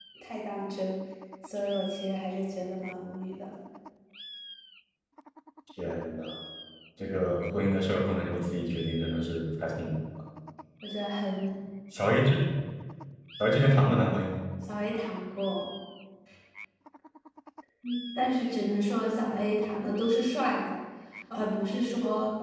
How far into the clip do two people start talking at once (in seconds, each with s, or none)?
none